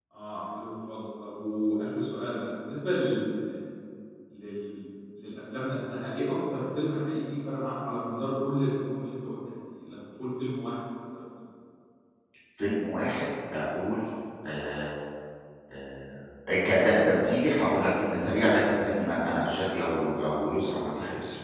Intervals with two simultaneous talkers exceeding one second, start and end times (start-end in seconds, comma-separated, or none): none